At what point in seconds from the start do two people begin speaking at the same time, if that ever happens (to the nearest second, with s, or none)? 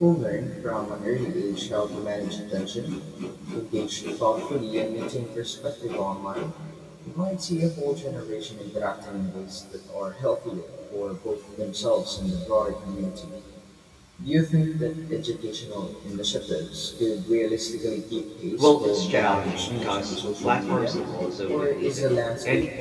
19 s